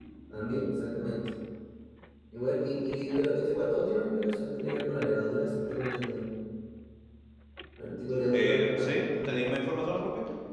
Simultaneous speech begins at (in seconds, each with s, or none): 8.3 s